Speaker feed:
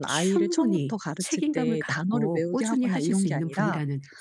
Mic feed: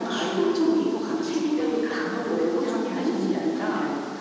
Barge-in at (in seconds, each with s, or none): none